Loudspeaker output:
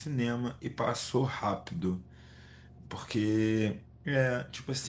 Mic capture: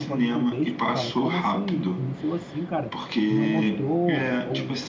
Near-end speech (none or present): present